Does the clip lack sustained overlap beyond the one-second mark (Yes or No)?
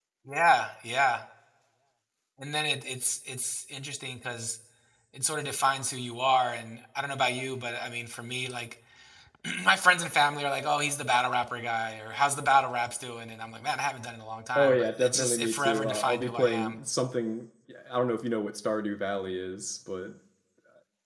No